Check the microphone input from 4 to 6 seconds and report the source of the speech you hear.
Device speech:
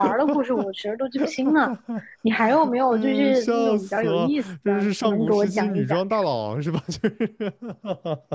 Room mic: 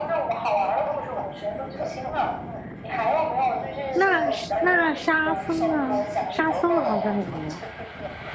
both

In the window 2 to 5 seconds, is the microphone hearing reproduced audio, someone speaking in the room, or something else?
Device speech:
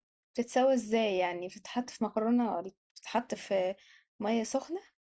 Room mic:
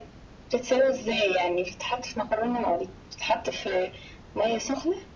echo only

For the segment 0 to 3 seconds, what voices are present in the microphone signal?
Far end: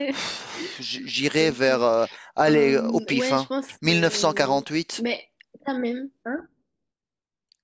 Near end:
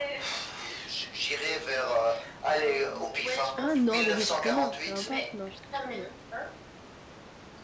echo only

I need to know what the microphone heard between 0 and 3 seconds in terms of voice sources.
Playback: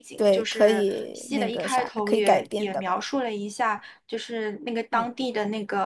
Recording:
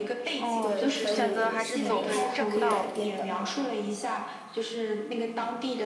both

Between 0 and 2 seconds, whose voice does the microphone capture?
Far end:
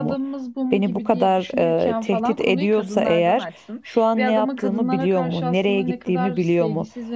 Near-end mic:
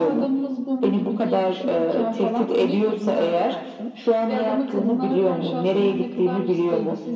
echo only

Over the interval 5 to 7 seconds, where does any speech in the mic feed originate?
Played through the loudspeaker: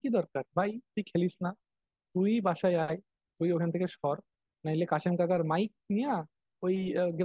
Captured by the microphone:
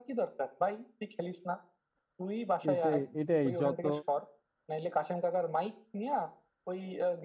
echo only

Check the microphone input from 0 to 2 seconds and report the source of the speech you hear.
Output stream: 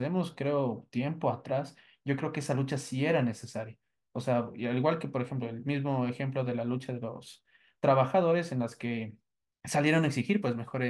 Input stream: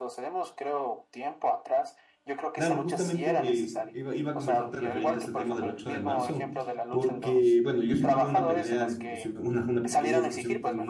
echo only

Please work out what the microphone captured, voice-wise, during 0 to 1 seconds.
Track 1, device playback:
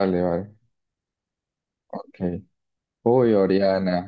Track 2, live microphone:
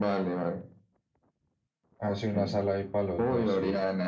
echo only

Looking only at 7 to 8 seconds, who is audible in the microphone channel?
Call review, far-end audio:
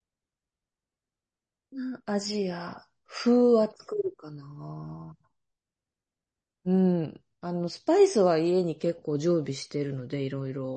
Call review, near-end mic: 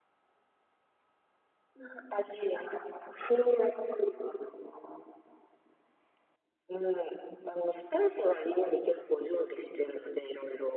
echo only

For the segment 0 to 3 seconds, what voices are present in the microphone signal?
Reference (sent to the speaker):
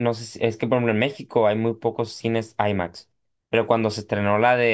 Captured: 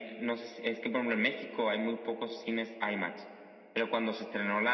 echo only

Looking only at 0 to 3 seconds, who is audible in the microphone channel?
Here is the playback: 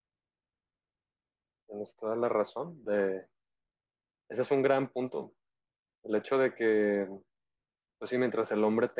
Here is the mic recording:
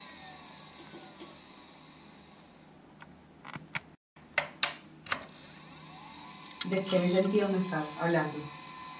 neither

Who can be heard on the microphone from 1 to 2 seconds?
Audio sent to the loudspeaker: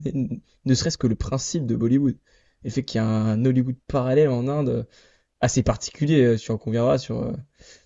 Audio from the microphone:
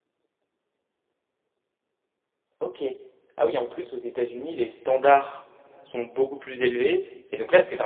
neither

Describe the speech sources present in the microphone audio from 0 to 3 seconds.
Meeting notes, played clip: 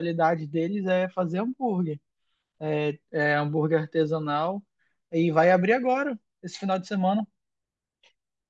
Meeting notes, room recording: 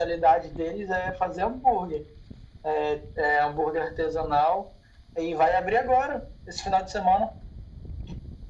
echo only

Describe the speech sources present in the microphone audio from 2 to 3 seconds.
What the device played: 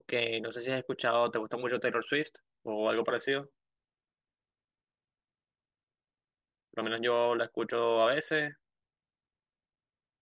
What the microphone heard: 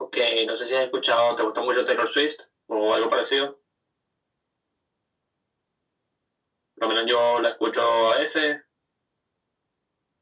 echo only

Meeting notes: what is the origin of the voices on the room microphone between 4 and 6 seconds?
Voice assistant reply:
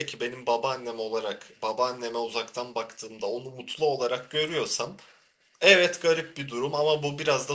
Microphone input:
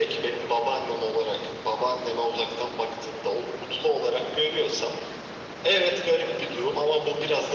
echo only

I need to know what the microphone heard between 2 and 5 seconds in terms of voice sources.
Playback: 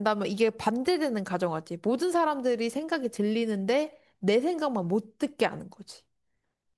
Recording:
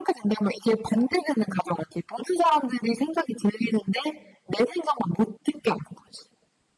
echo only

